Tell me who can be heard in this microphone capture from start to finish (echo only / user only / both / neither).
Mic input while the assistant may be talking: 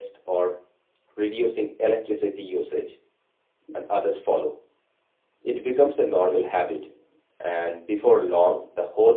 user only